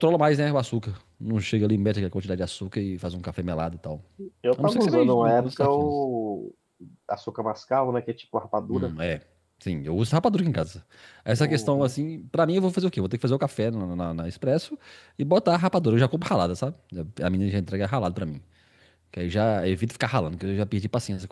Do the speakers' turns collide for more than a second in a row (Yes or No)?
Yes